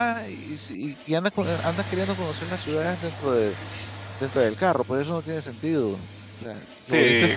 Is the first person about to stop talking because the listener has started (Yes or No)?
Yes